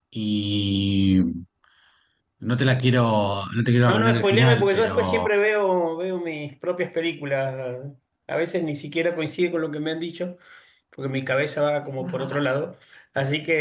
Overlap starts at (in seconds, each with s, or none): 3.9 s